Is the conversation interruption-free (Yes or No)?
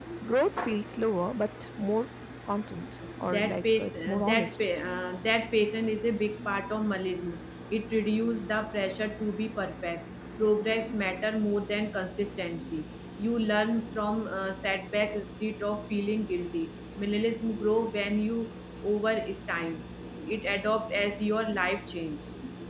No